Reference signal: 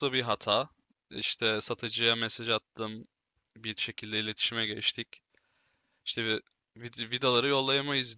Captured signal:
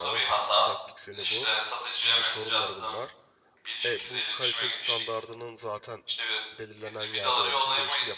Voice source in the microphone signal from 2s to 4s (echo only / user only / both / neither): both